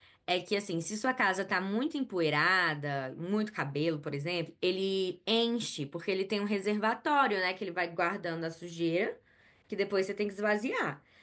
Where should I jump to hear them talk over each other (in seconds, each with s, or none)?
none